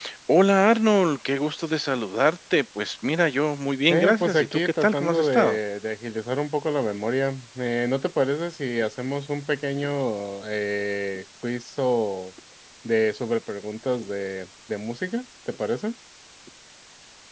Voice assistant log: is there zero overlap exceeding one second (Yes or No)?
No